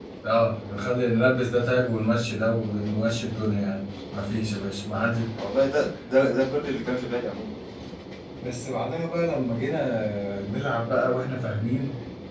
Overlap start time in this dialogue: none

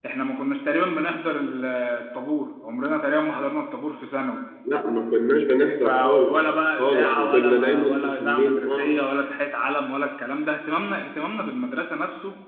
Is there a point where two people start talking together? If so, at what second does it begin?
5.8 s

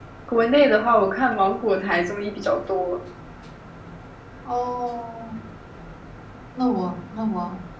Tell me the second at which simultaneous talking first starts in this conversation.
none

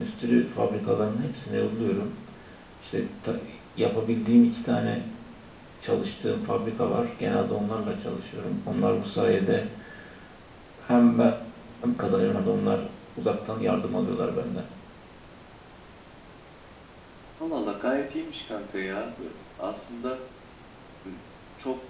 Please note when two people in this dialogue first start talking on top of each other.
none

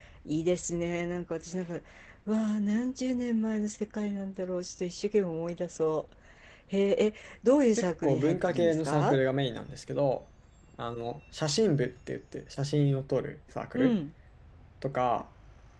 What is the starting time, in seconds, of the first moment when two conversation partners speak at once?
7.8 s

